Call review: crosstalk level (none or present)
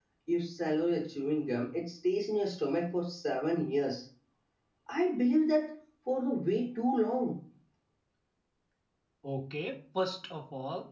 none